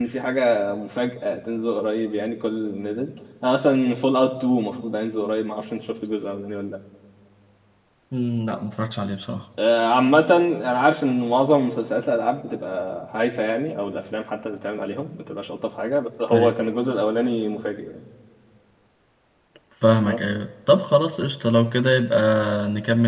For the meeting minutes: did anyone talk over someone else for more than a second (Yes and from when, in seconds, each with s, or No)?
No